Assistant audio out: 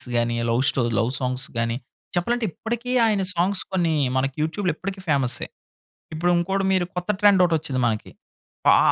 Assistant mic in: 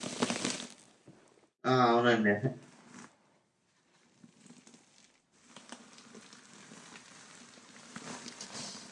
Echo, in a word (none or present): none